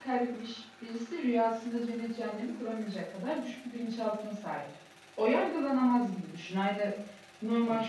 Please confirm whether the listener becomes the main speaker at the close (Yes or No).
No